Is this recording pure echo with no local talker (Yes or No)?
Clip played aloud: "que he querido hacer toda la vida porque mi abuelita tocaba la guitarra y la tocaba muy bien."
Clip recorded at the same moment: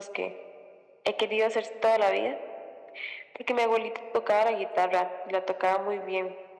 Yes